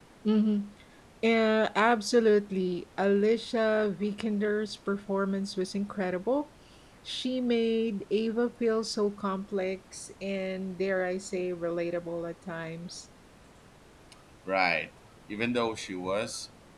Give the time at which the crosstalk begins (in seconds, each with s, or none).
none